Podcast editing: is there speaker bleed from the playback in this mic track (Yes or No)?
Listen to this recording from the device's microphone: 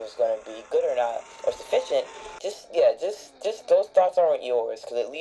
Yes